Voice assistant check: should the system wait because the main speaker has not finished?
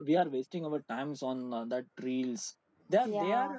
Yes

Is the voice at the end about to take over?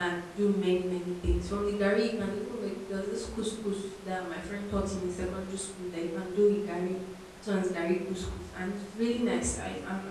No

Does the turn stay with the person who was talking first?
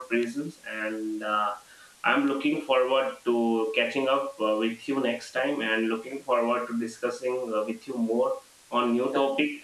Yes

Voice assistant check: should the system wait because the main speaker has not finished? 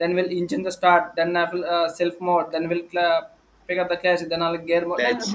Yes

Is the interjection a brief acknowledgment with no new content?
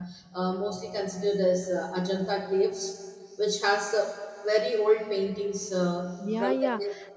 No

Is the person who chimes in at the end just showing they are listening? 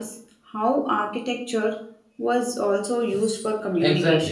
No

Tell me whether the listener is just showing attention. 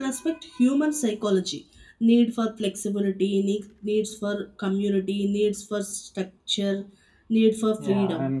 No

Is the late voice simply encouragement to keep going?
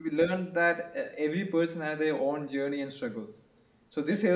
Yes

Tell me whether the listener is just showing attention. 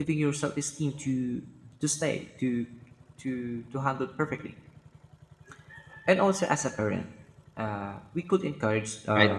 Yes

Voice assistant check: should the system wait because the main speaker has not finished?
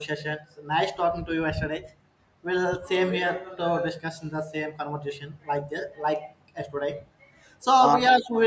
Yes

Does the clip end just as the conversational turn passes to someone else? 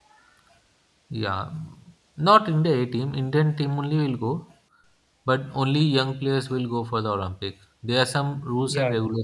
No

